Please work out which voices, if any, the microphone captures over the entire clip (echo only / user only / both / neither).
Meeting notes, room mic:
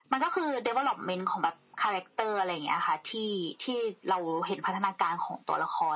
echo only